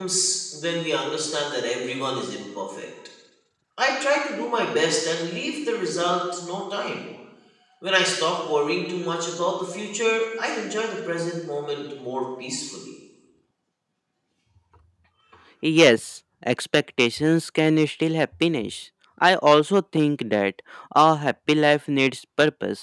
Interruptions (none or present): none